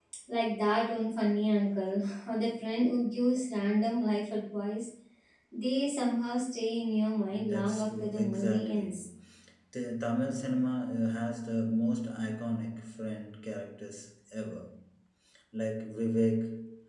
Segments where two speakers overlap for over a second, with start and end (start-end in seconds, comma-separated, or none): 7.3-8.8